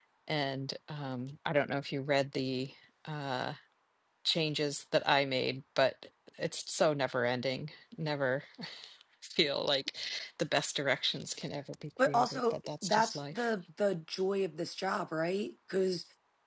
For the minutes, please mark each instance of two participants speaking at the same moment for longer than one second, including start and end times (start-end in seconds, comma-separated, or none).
12.1-13.5